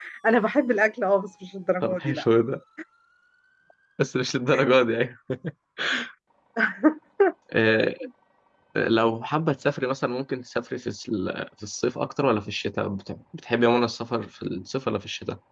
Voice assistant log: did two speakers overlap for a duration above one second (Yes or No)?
No